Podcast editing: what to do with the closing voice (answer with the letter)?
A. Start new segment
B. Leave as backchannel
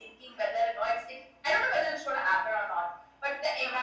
B